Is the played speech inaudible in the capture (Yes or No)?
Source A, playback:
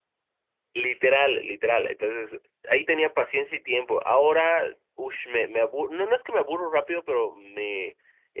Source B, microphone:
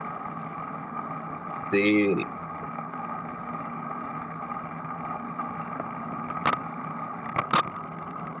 Yes